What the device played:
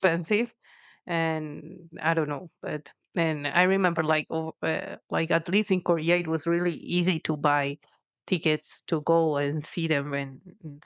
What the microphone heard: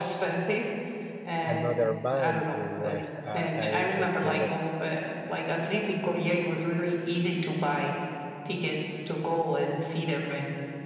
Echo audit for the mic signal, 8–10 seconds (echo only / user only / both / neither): echo only